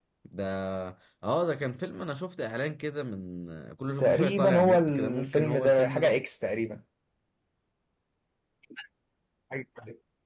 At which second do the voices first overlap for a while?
4.0 s

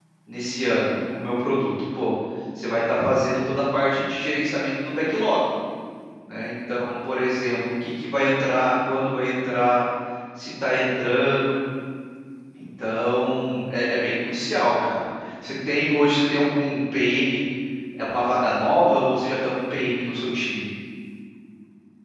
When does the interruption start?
none

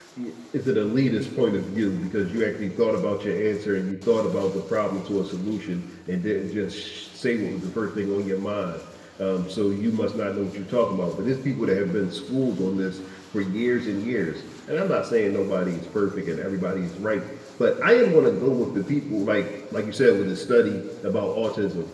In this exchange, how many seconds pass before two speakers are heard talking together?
none

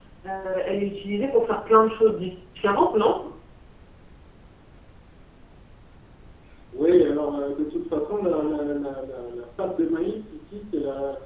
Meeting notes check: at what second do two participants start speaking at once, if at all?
none

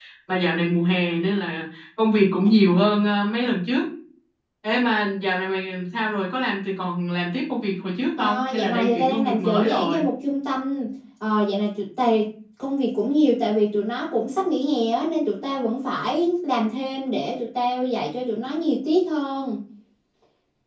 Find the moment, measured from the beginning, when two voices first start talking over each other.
8.2 s

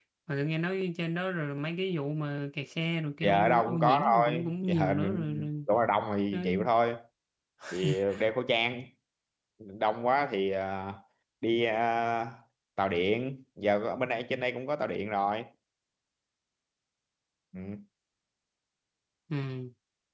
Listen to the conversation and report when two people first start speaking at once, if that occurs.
3.2 s

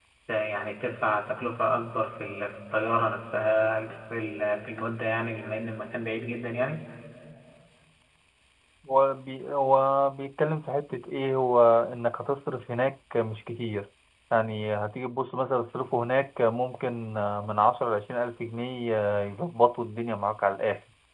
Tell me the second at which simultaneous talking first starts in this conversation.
none

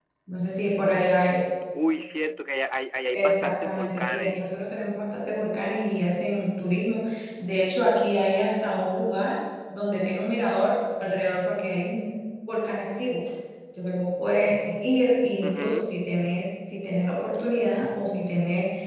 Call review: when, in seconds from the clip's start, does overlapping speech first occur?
3.1 s

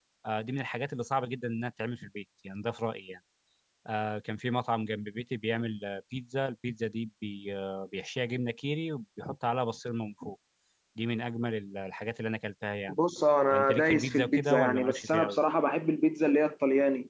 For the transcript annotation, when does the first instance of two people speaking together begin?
13.5 s

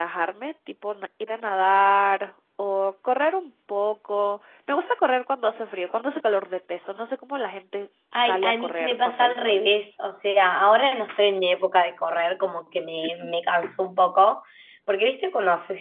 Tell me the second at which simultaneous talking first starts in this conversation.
8.1 s

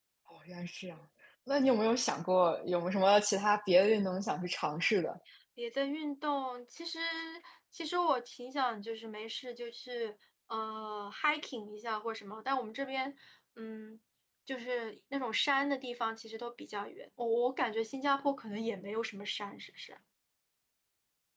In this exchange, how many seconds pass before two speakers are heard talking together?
none

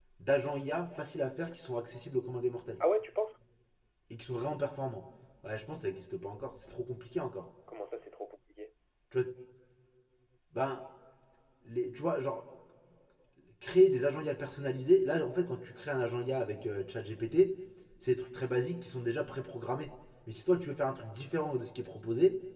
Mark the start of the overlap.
none

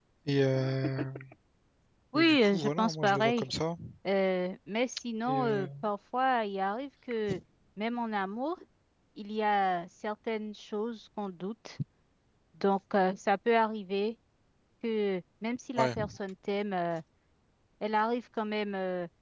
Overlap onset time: 2.1 s

